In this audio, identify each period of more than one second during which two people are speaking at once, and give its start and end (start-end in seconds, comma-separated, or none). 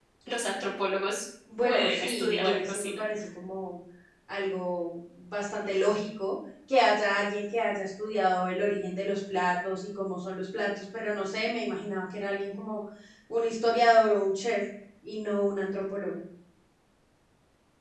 1.6-3.0